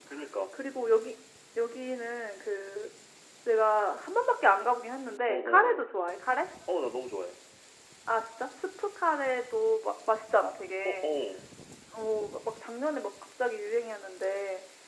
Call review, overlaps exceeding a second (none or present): none